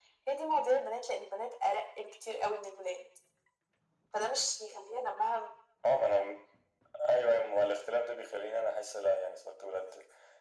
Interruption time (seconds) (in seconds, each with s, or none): none